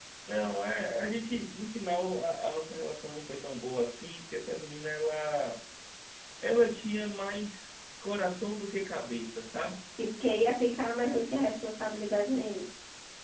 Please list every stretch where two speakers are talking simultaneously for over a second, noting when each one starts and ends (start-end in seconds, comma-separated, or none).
none